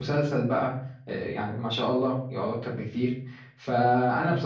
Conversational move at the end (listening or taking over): listening